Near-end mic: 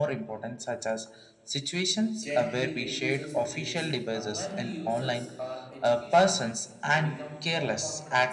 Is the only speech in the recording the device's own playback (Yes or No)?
No